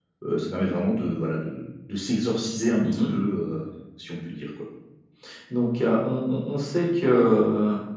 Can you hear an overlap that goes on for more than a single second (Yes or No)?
No